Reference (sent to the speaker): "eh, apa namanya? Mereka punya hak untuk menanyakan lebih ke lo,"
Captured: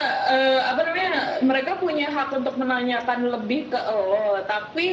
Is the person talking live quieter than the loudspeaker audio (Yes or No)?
Yes